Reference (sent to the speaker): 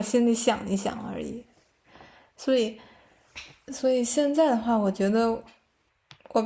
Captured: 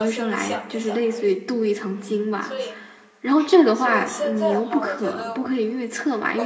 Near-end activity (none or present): present